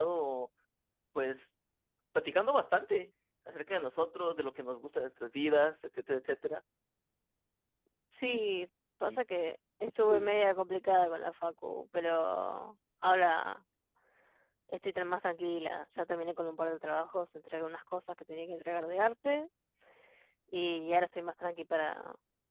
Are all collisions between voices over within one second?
Yes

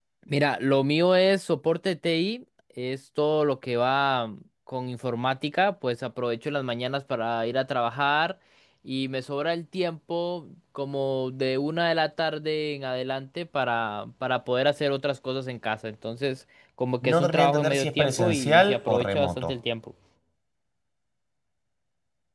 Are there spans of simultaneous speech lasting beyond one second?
Yes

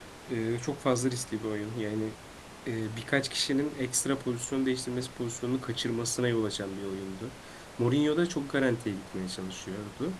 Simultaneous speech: No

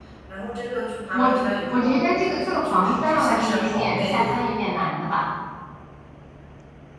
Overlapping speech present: Yes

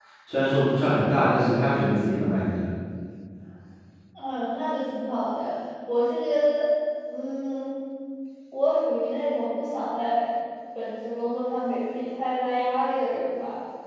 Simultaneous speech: No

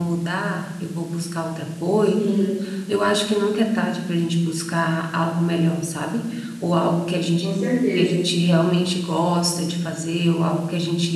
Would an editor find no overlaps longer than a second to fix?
Yes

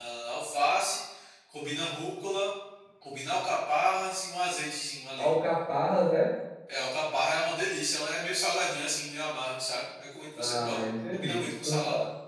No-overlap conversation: No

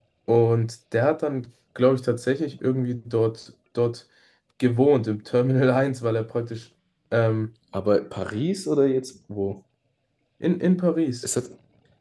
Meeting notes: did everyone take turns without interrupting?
Yes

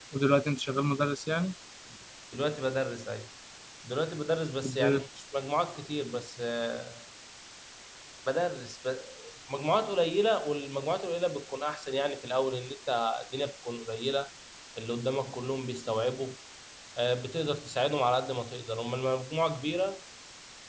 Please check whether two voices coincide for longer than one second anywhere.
No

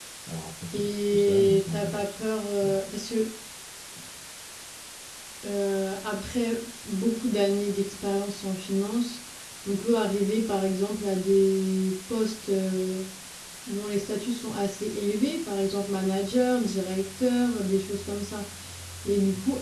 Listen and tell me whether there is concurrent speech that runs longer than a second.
Yes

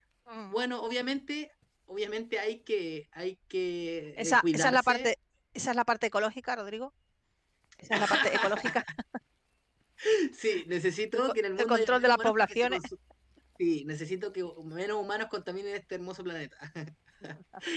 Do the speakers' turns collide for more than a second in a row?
Yes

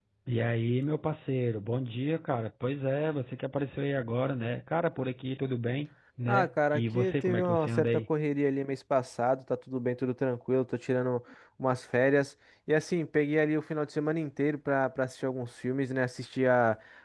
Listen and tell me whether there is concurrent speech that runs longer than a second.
Yes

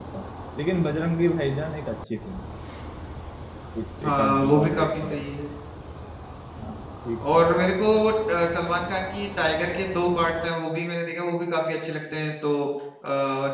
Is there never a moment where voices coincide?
No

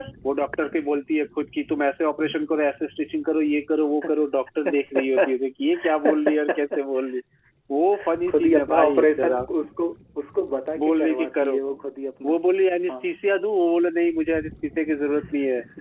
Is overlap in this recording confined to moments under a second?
No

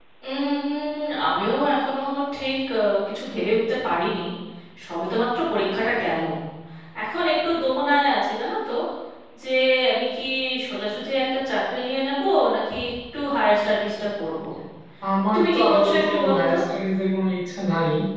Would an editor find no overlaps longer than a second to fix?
No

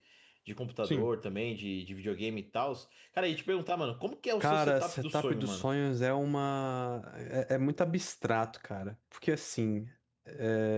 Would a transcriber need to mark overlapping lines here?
Yes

